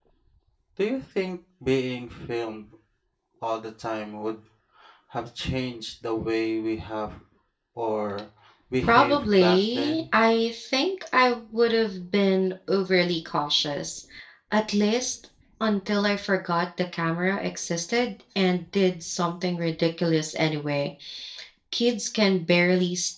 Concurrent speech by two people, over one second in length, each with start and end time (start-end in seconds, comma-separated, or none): 8.8-10.2